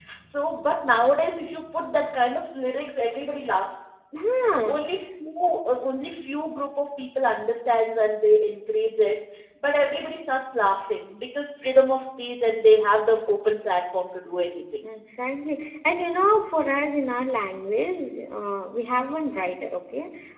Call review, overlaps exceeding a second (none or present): none